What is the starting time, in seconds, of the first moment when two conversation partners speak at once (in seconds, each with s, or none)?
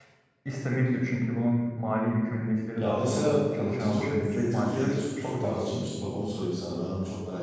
2.8 s